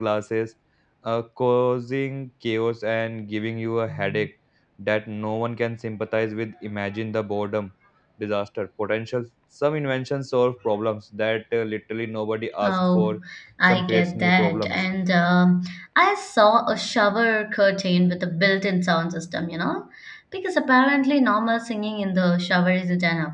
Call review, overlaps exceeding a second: present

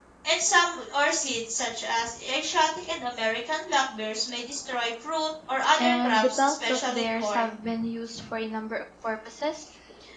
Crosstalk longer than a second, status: present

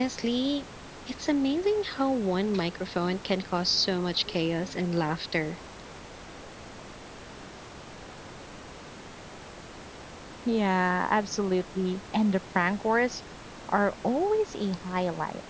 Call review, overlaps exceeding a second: none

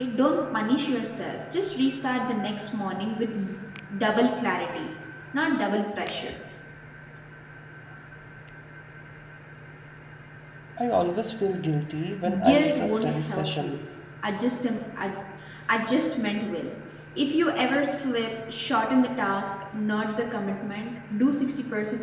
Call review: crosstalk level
present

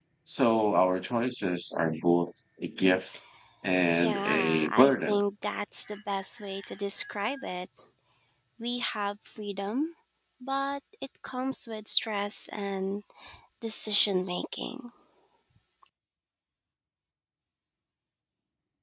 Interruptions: present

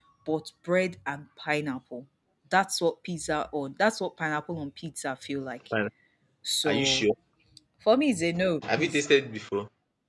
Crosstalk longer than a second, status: none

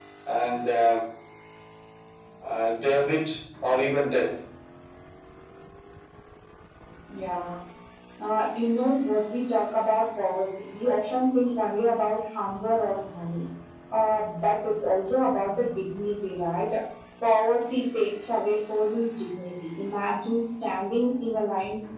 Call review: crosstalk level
none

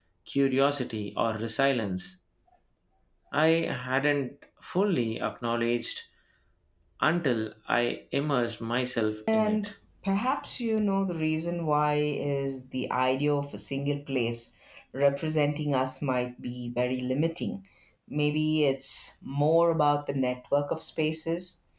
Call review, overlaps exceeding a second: none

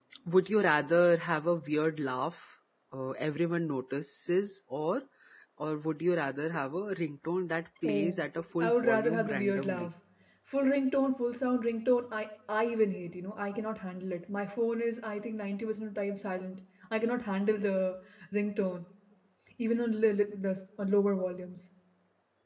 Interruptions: present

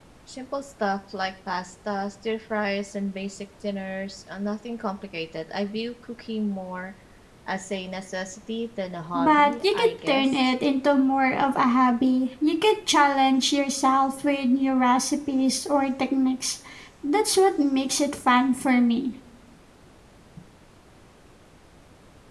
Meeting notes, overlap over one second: present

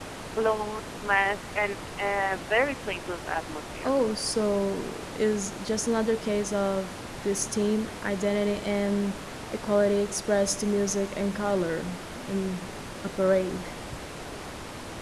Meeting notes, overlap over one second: none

